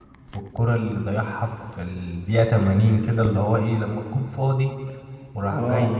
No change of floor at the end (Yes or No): Yes